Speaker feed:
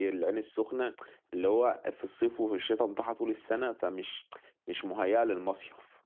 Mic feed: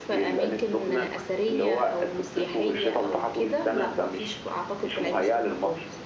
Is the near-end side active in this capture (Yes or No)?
Yes